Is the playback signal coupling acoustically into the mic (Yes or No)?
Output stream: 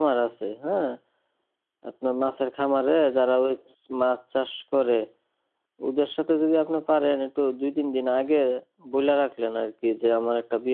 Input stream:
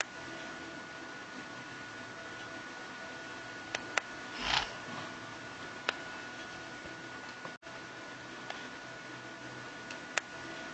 No